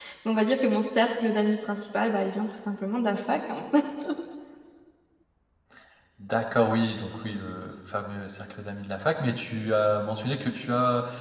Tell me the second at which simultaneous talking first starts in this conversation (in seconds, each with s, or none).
none